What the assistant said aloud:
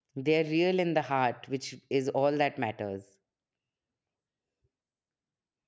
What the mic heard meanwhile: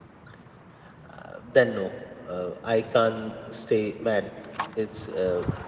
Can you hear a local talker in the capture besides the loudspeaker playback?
Yes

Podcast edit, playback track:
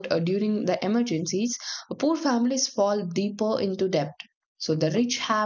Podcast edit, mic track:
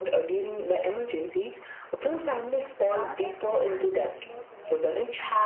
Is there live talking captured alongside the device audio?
Yes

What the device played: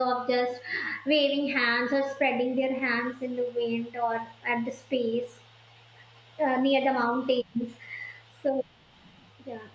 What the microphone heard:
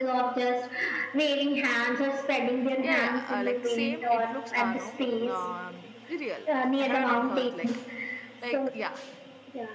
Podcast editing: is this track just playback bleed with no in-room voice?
No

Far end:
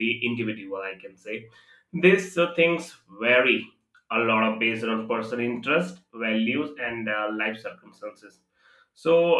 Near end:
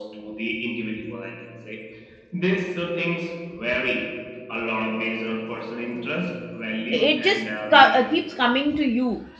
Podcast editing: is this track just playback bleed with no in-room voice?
No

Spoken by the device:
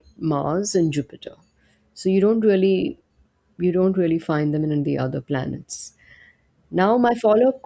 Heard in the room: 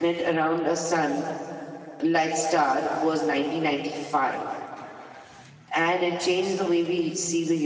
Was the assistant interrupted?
Yes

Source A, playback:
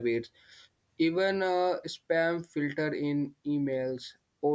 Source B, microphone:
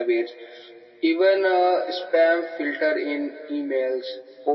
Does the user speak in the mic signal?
No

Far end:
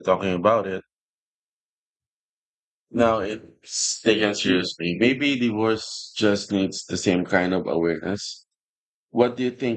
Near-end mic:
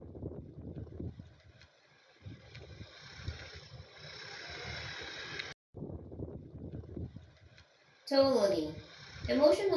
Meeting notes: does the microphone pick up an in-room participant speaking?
Yes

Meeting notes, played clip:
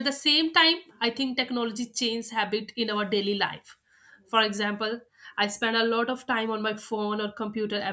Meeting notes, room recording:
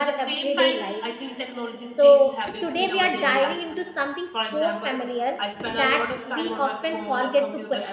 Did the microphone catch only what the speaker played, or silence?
No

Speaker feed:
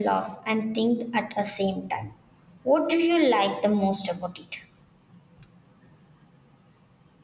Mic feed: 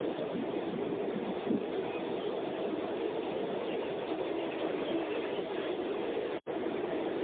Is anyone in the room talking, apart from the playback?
No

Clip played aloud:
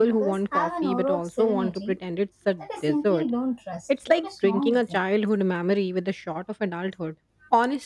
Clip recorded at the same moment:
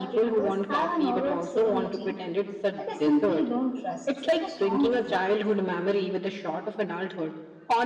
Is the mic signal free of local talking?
Yes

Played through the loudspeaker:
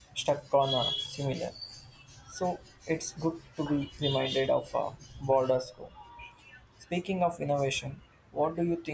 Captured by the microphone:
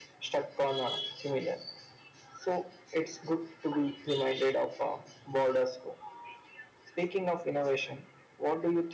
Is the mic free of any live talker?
Yes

